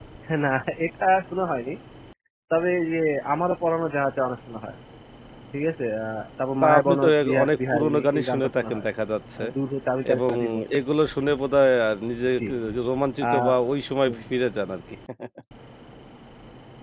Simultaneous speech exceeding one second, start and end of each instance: 6.6-8.8

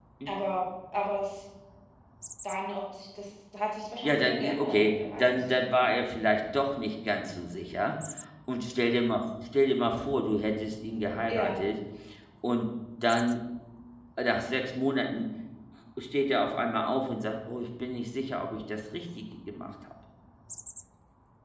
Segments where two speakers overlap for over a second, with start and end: 4.0-5.4

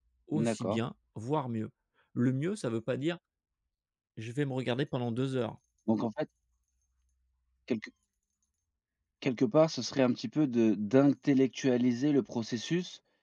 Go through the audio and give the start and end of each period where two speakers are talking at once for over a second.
none

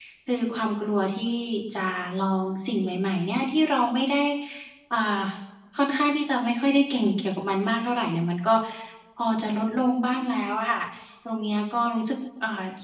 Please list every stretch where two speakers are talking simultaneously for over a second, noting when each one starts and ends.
none

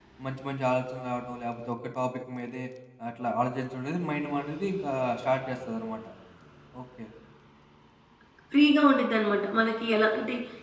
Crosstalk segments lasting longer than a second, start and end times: none

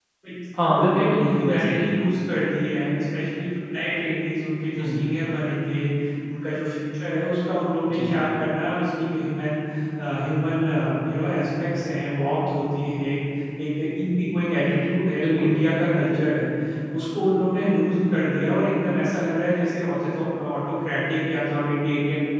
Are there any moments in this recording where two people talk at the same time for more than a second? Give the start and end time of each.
0.6-1.9

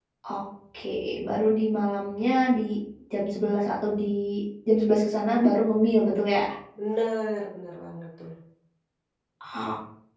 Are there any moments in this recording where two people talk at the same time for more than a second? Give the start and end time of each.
none

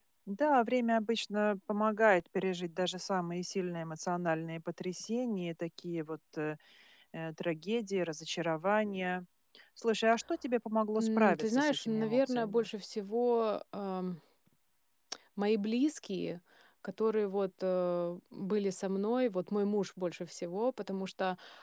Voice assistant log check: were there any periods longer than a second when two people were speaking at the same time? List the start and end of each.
11.0-12.7

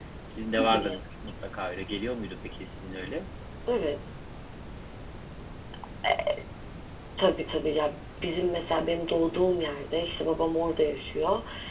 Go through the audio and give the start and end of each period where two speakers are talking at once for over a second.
none

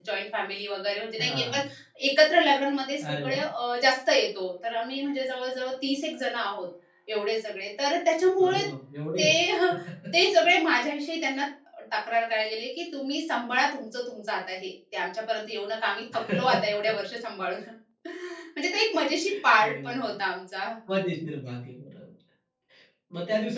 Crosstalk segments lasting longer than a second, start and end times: none

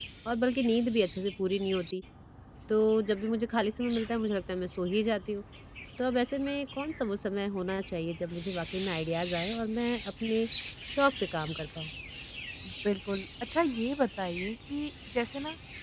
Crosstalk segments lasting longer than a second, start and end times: none

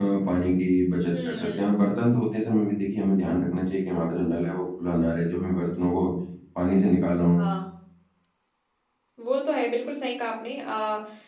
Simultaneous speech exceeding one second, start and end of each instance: none

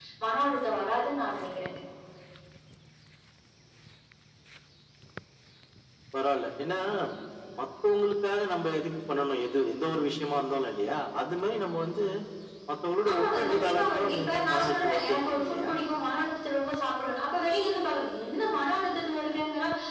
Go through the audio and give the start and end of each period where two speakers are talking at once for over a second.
13.1-15.7

